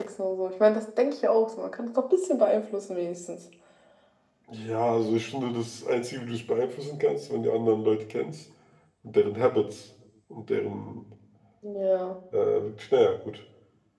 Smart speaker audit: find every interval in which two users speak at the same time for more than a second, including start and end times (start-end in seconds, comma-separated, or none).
none